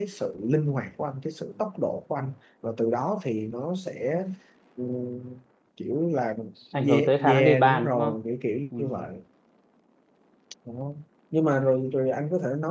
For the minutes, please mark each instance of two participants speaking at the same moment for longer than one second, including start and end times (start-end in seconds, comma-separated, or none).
6.9-8.1